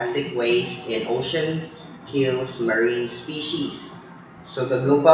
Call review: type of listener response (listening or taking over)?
listening